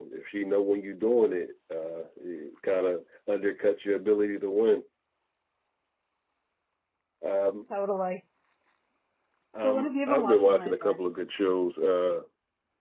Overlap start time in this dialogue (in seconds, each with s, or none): 9.6 s